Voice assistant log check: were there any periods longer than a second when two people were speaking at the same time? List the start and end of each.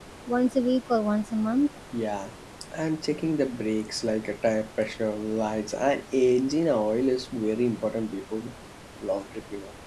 none

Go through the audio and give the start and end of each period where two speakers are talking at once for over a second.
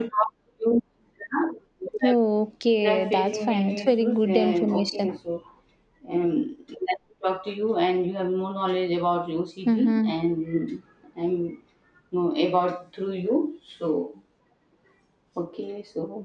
2.8-5.1

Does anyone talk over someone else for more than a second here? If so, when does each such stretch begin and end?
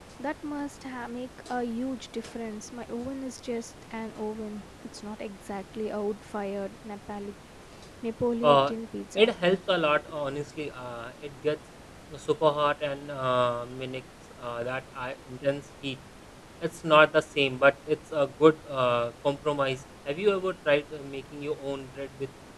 none

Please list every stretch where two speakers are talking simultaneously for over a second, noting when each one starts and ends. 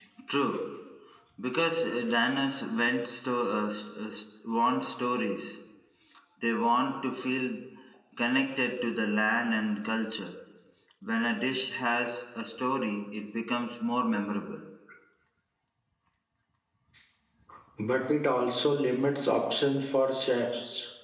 none

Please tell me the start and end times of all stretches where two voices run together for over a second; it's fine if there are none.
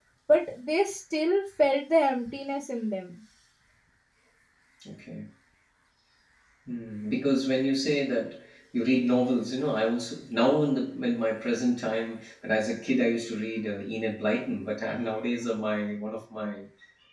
none

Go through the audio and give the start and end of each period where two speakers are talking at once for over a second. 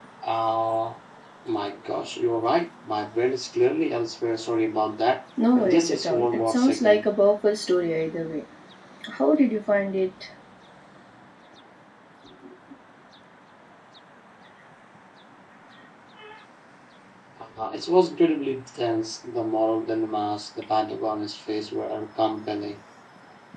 5.6-7.0

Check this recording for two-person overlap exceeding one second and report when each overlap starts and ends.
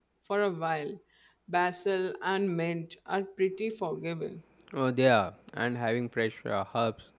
none

